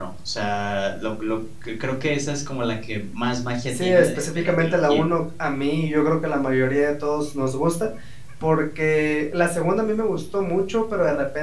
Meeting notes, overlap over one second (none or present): present